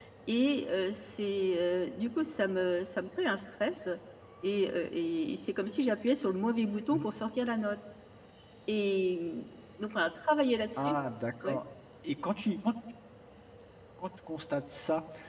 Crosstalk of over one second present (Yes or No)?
No